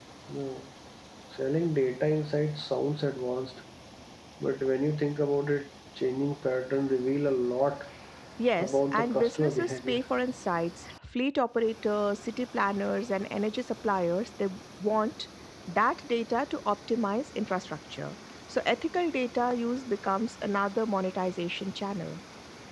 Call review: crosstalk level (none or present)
present